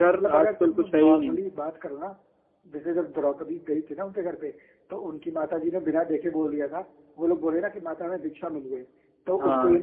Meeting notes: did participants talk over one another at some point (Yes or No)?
Yes